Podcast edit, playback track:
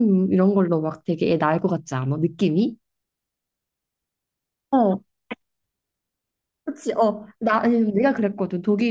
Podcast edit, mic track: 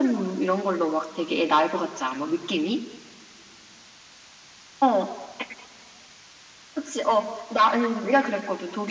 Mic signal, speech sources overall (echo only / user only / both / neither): echo only